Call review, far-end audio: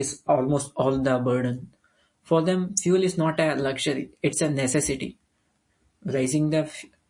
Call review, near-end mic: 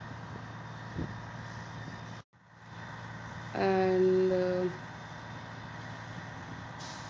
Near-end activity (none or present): present